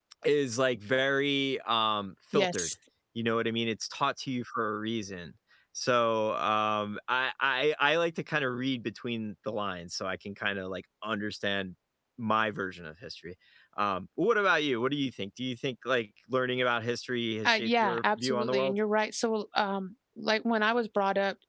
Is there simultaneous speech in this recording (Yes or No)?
Yes